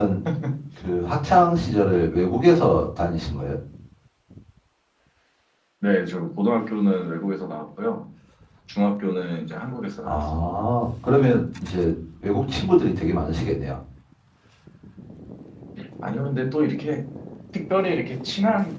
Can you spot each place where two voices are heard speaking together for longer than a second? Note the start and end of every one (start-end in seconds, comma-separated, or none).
none